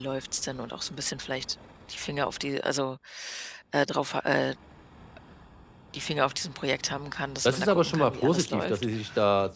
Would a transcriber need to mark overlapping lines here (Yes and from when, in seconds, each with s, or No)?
Yes, from 7.5 s